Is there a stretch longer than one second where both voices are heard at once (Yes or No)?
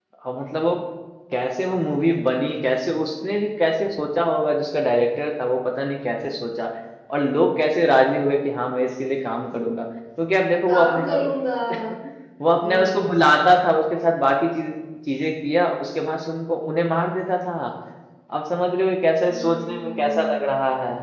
Yes